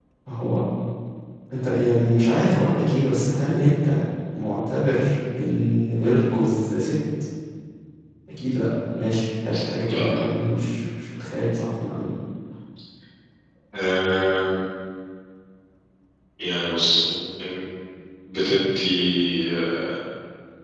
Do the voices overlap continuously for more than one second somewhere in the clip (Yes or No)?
No